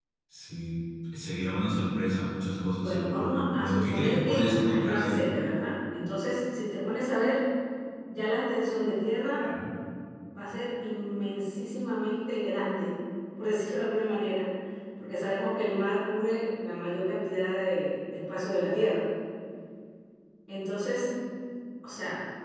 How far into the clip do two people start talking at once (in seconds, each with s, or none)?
2.8 s